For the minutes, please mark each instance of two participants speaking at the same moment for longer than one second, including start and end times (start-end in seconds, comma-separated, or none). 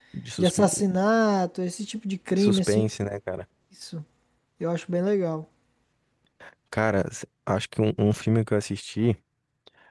none